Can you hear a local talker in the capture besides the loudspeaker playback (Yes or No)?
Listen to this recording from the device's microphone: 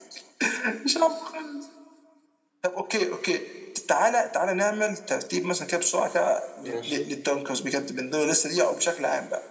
Yes